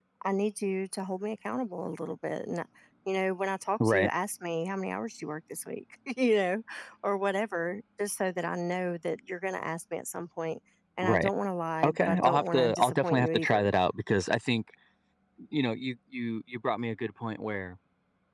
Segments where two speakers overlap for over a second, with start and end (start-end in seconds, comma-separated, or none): 11.8-13.7